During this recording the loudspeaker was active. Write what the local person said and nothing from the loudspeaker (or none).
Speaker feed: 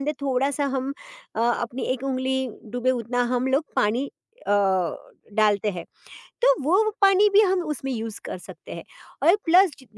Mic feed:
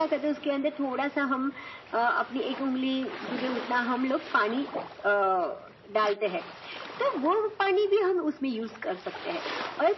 none